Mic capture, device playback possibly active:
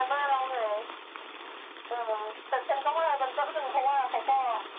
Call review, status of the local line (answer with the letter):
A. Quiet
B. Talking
A